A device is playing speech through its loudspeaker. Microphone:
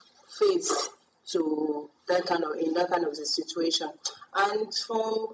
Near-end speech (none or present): none